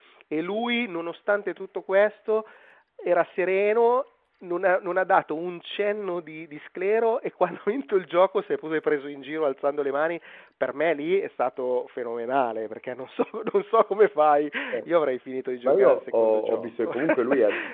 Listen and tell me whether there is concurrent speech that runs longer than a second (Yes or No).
Yes